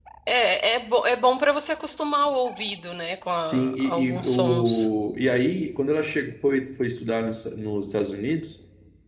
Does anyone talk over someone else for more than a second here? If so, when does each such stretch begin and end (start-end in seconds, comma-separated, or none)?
3.4-4.9